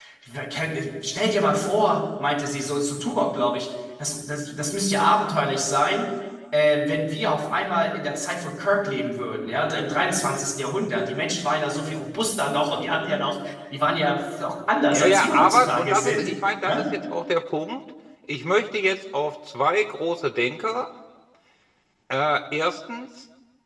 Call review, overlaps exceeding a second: present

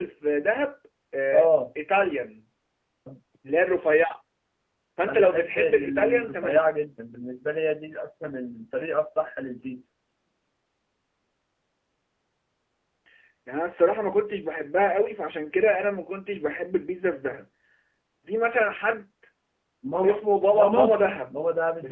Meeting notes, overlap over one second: present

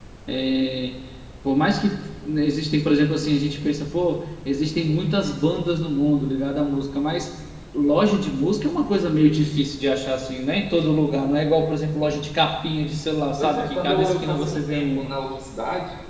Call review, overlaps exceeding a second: present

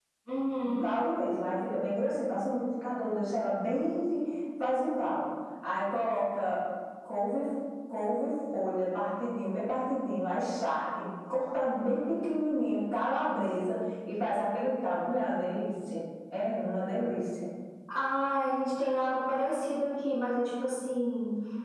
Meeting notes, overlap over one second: none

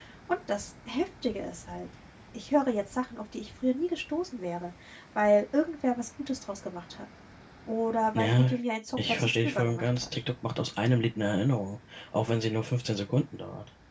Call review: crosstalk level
present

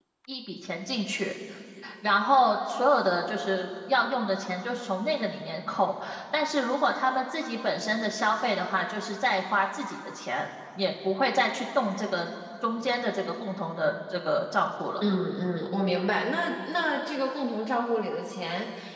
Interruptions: none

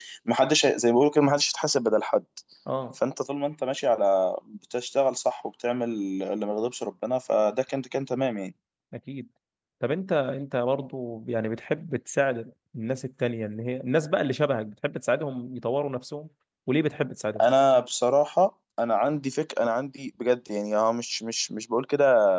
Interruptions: none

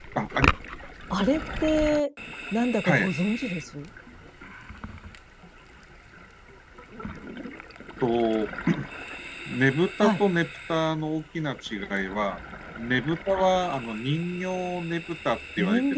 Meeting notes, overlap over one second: none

